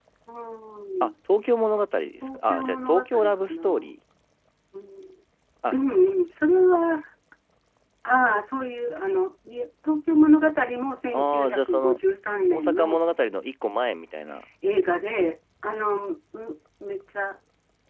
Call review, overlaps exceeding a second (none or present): present